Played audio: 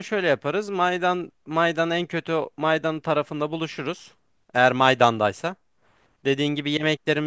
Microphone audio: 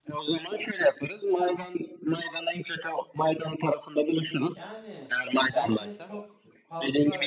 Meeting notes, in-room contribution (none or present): present